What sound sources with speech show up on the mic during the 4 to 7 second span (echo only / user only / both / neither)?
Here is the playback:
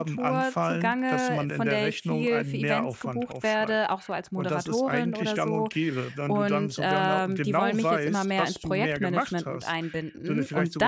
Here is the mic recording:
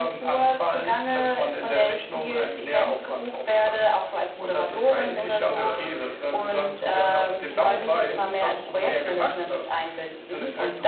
both